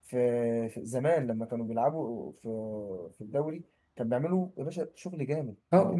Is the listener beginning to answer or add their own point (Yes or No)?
Yes